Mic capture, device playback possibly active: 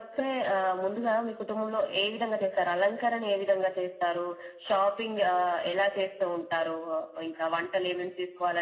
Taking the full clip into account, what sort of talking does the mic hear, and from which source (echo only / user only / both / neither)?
echo only